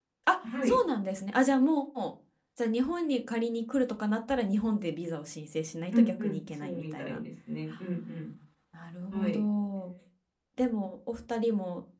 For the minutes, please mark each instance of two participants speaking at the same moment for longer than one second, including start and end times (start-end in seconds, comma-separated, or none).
5.9-7.2